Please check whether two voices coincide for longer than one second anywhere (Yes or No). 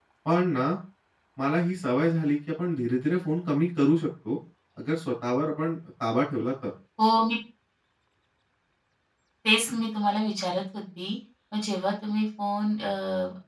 No